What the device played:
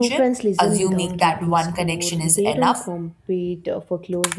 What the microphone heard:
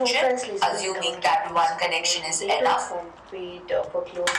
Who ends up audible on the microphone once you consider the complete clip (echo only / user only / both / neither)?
echo only